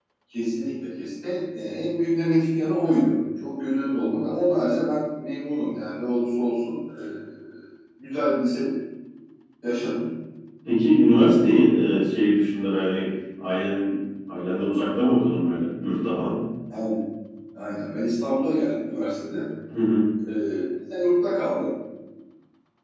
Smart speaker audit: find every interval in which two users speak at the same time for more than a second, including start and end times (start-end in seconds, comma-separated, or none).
none